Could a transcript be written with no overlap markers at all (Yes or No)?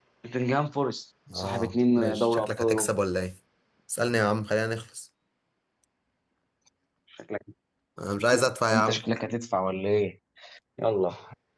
No